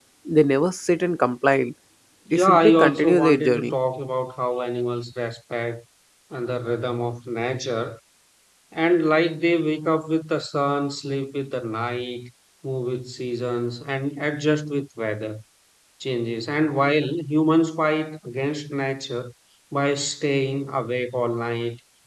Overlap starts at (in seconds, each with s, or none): 2.3 s